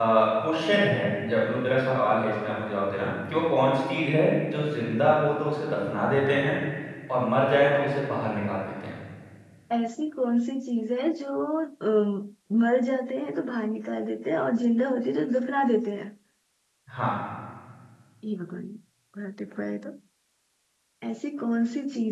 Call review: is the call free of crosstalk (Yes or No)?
Yes